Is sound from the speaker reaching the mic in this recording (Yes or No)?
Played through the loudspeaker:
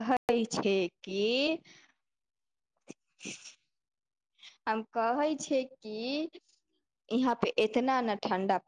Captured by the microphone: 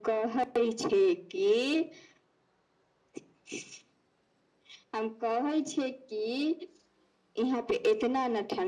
Yes